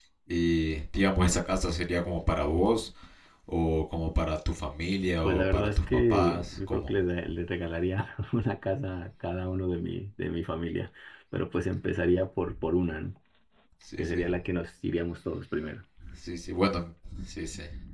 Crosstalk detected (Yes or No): Yes